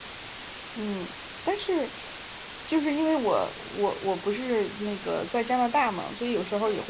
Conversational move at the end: listening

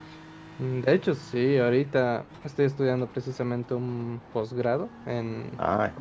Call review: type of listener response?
listening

